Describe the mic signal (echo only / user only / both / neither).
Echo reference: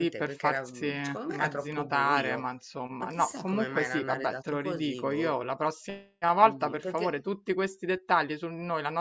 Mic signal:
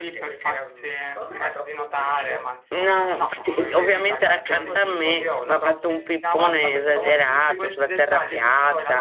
both